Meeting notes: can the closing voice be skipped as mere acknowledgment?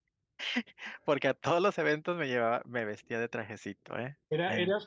No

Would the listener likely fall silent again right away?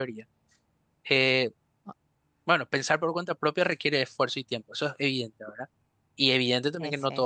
Yes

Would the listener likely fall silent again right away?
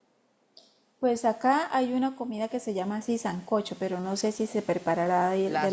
No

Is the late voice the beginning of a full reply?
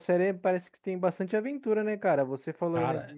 No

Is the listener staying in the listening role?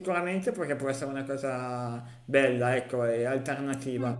Yes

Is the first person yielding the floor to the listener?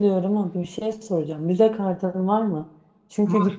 No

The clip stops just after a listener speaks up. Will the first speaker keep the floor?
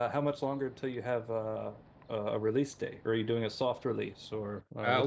No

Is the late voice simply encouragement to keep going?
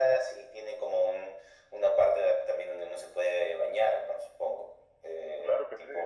No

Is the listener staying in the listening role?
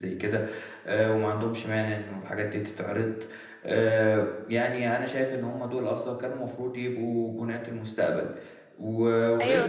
Yes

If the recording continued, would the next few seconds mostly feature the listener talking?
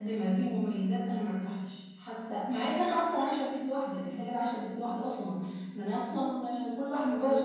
No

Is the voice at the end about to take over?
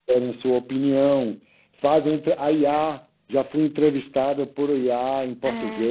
Yes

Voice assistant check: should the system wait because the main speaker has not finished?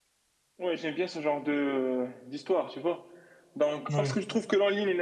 Yes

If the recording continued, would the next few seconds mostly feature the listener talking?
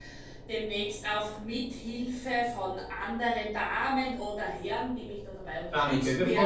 Yes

